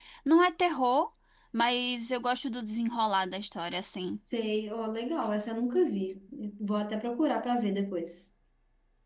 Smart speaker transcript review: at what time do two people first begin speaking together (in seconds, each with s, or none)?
none